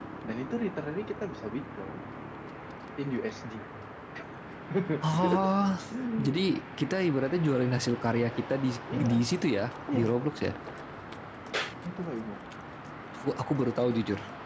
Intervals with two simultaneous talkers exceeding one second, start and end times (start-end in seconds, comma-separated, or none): none